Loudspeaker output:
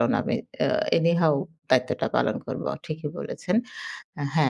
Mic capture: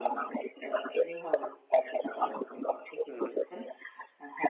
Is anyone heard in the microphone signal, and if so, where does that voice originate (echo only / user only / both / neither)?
both